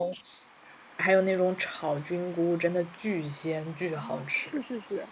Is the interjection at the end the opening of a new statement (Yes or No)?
Yes